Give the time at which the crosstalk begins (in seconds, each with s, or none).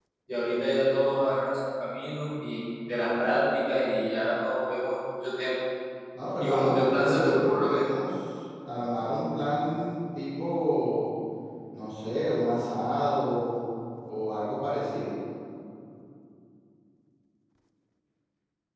6.4 s